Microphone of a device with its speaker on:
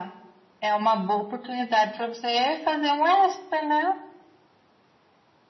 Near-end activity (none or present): none